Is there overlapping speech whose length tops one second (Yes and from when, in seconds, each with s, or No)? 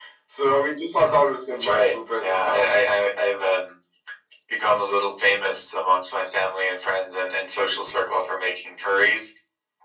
Yes, from 0.9 s